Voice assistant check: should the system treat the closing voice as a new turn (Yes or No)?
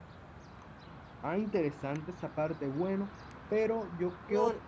No